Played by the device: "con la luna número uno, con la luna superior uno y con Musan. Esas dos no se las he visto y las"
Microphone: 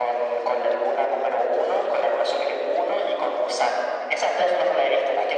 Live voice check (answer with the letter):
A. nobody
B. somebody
A